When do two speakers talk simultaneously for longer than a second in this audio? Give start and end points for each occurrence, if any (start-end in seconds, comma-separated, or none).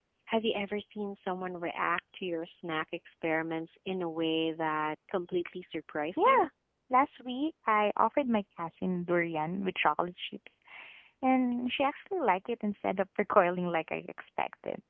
none